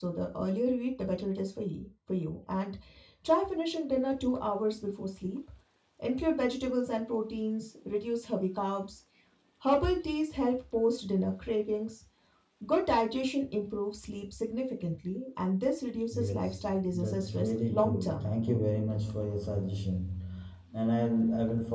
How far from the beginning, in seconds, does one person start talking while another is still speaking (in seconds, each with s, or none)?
16.1 s